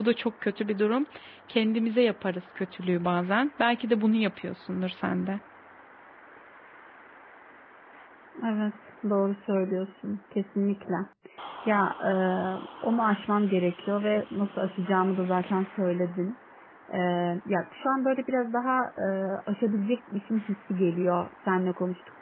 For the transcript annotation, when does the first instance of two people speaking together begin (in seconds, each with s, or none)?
none